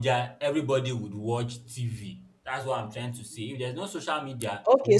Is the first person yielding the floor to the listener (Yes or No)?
Yes